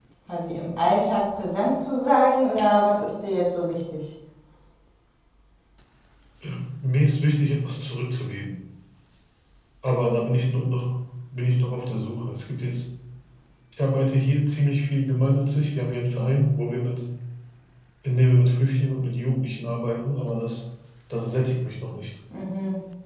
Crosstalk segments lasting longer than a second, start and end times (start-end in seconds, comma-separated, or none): none